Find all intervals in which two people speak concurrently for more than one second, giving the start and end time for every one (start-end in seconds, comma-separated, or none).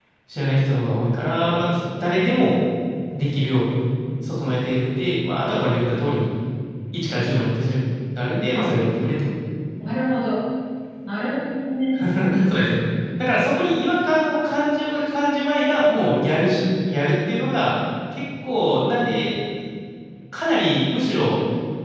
none